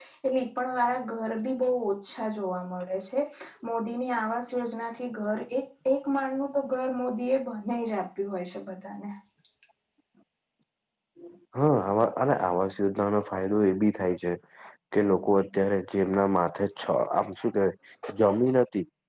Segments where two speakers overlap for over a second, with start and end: none

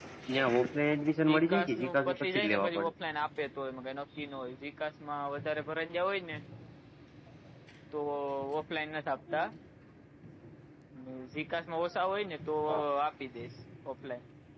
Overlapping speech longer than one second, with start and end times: 1.2-2.9

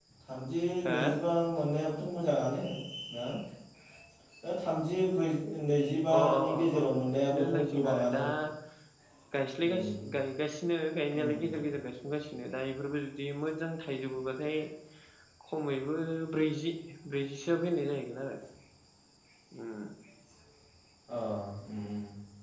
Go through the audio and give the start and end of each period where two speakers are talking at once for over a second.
6.2-8.2

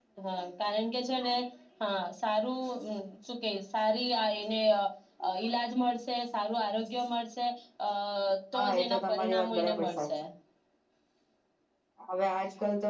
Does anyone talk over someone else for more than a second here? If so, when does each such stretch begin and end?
8.6-10.0

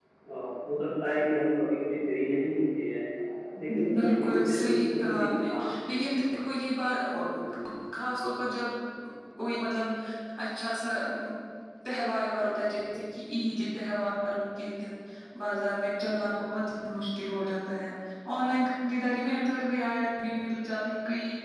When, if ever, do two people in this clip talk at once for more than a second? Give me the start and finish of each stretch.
4.0-5.6

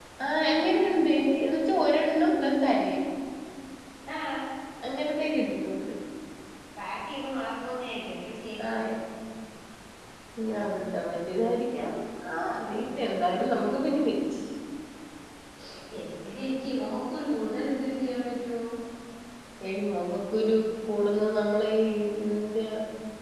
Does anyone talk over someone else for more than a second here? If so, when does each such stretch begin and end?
none

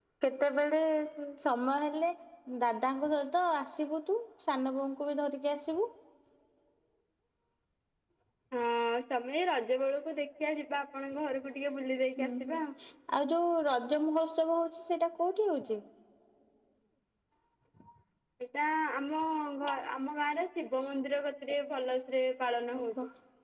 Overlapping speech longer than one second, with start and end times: none

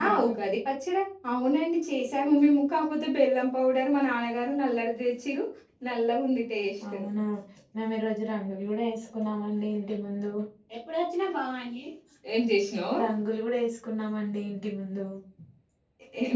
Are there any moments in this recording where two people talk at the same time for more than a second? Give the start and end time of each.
none

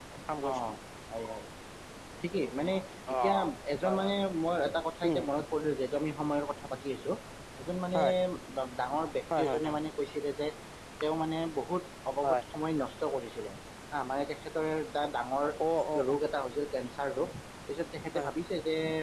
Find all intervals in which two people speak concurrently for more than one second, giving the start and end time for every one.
none

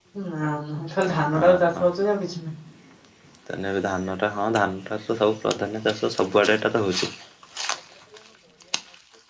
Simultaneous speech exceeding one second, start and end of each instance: none

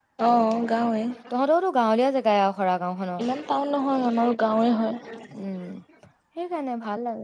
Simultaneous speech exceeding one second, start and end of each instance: none

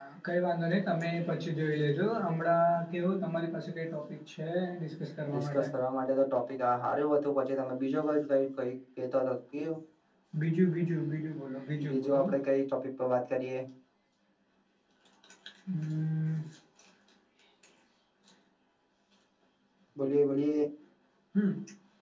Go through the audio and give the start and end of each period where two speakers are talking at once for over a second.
none

